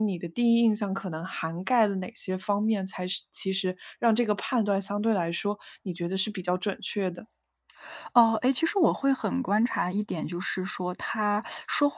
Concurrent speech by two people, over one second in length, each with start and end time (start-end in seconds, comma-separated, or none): none